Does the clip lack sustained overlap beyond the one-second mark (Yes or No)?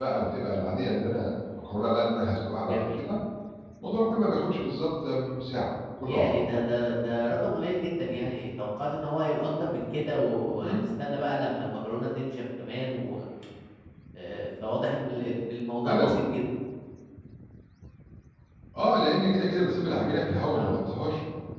Yes